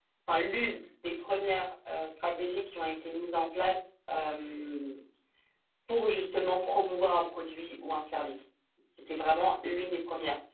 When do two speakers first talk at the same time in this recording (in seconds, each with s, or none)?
none